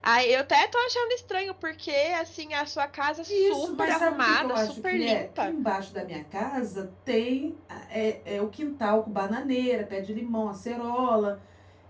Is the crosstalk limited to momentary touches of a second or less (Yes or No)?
No